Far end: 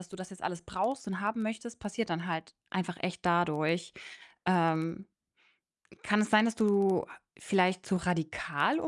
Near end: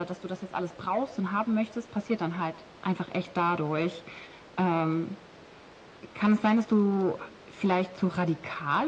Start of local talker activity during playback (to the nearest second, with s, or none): none